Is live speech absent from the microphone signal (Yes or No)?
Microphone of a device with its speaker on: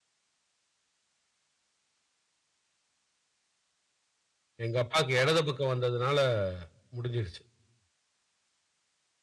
No